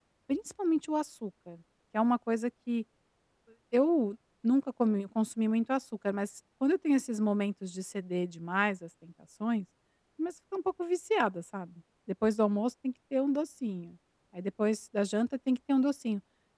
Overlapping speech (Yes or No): No